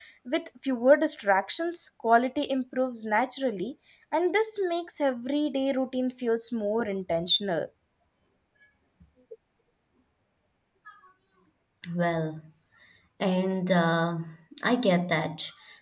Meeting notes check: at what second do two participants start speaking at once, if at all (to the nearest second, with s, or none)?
none